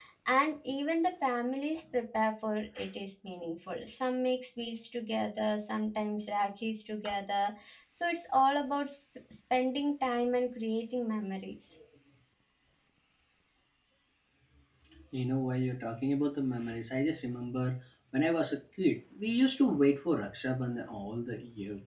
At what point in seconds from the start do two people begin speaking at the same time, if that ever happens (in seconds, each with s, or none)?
none